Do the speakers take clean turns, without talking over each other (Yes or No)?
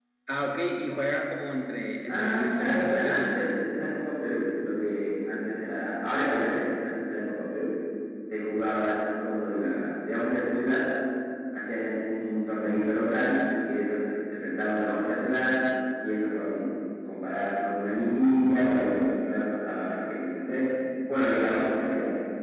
No